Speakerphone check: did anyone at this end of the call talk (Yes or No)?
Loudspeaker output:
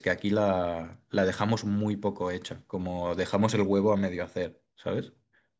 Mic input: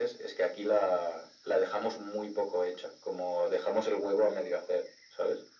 No